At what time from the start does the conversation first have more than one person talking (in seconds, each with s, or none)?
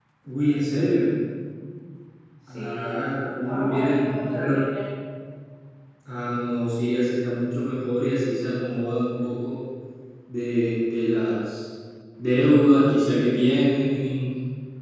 2.5 s